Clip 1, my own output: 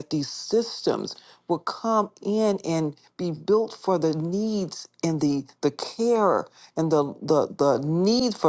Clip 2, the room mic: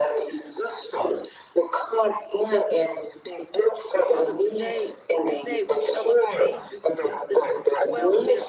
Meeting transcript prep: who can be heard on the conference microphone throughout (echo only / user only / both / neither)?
both